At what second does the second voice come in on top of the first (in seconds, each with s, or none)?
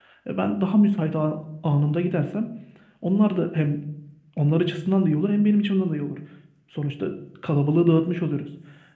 none